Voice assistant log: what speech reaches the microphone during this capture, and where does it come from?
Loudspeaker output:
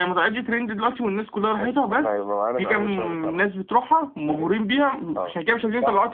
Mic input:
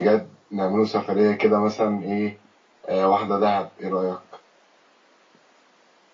user only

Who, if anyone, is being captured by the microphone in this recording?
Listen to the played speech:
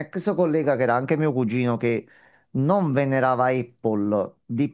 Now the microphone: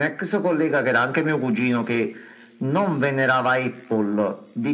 echo only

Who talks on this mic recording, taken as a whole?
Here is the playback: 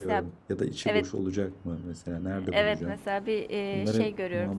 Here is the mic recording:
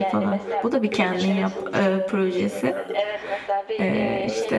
both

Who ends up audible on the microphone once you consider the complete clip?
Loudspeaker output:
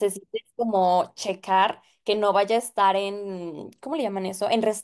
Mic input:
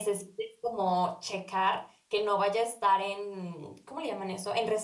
echo only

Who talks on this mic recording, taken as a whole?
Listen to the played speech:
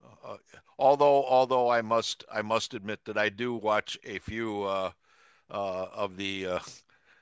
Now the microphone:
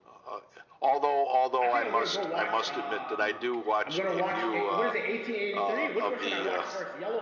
both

